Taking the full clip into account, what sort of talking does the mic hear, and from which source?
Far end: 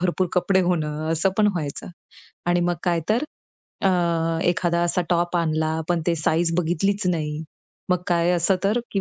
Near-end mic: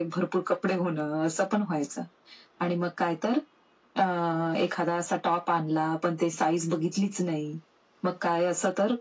echo only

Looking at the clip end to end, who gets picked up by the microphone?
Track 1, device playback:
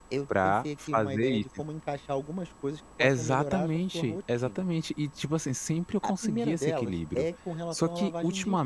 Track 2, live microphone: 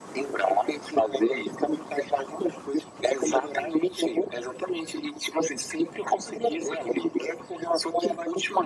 echo only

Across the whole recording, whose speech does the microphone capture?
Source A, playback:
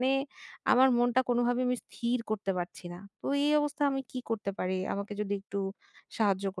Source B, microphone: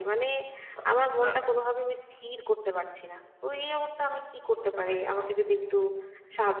both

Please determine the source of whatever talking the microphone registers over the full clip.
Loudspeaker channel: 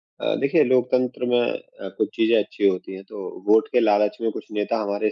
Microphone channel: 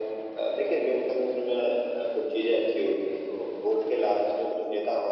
echo only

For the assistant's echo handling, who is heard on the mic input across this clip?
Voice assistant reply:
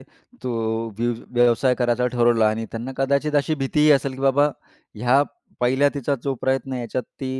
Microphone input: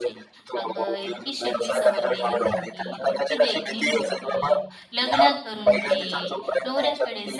both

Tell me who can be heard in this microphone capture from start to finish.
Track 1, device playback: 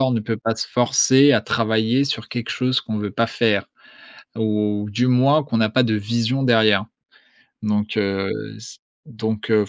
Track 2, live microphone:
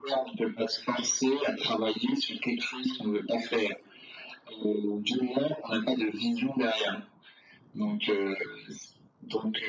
echo only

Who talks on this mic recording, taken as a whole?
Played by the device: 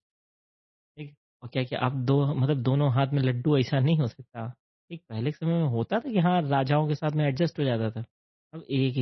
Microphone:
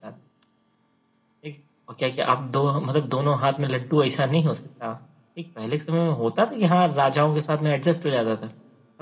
echo only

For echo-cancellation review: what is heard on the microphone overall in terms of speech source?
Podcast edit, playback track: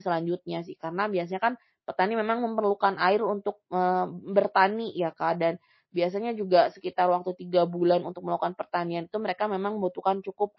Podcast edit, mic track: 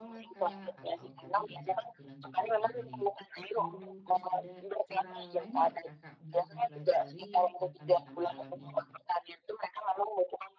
both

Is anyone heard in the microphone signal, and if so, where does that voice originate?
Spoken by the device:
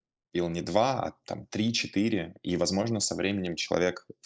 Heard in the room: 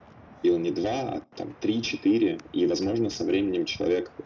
echo only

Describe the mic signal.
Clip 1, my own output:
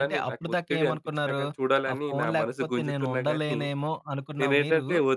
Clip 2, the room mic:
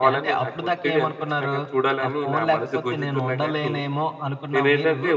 echo only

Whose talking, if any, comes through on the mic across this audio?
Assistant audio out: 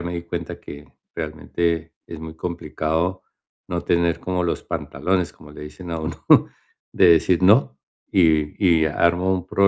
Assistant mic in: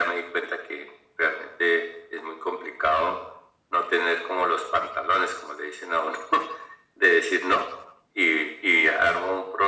echo only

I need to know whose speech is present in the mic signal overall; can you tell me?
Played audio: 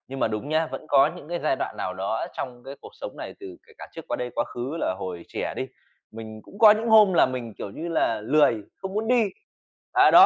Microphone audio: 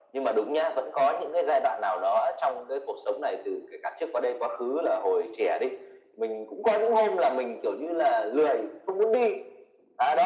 echo only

